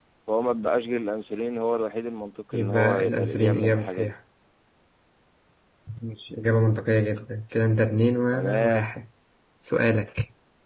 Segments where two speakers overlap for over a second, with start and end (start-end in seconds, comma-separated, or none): 2.5-4.2